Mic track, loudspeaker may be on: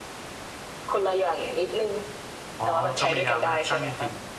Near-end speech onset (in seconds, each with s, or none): 2.6 s